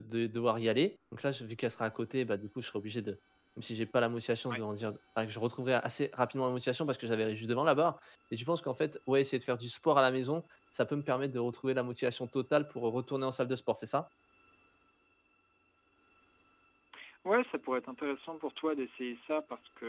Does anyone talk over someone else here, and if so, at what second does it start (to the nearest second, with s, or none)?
none